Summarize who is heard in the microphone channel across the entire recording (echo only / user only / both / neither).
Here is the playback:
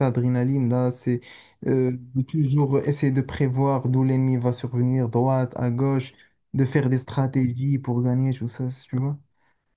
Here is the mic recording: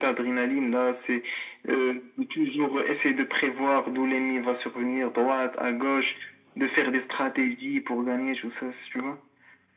echo only